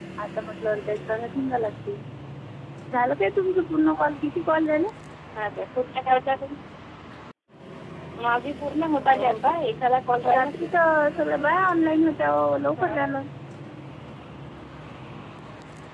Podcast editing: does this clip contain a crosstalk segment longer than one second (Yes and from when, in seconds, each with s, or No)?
No